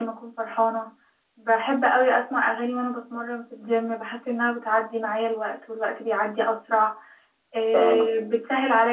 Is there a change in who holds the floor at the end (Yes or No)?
No